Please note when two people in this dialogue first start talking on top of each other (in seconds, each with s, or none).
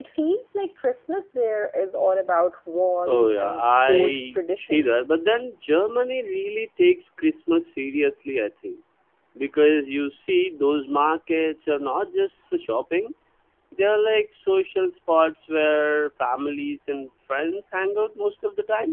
3.1 s